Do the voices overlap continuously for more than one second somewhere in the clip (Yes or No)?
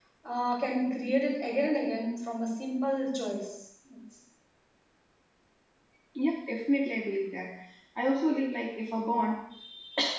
No